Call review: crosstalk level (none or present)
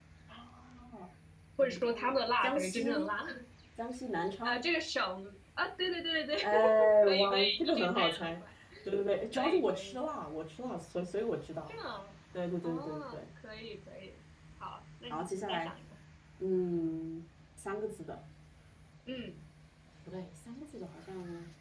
present